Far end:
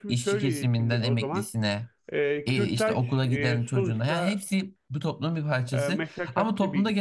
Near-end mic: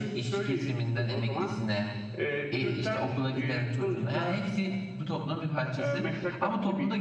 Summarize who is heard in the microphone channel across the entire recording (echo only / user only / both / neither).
echo only